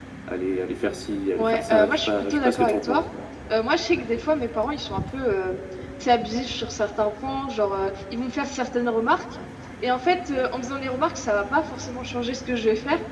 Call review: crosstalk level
present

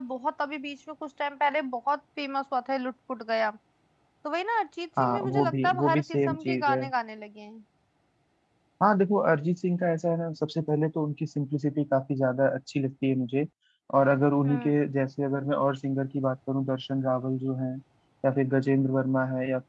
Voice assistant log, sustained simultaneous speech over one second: present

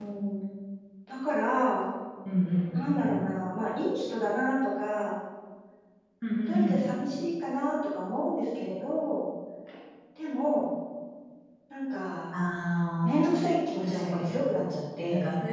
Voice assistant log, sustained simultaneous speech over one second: none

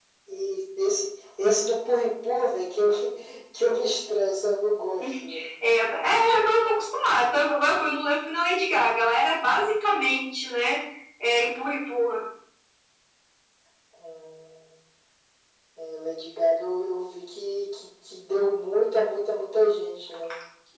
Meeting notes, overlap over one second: none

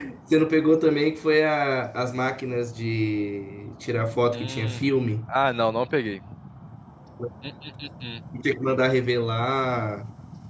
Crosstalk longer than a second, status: none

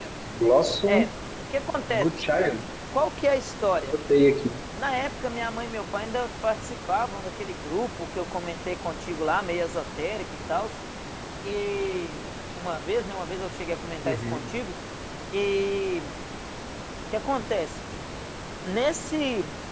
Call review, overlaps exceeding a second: none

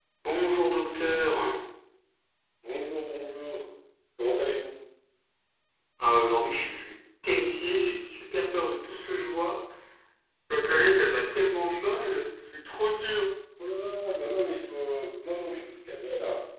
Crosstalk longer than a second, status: none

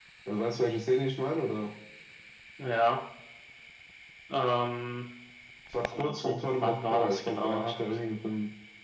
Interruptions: present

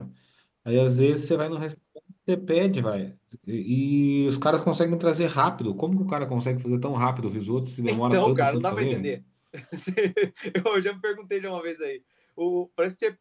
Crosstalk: present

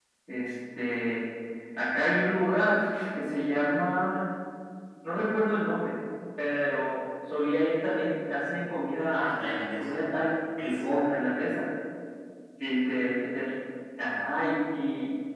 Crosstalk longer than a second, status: none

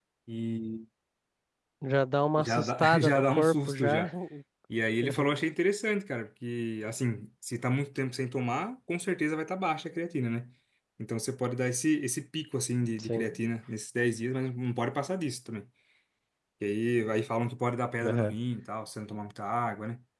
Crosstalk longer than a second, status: present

